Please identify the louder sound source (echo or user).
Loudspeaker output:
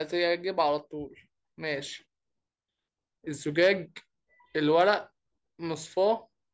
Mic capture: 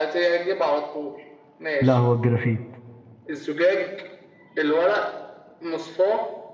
user